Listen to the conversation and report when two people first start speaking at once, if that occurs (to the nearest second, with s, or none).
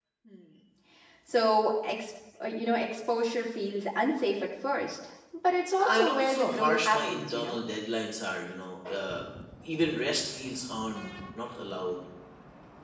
6 s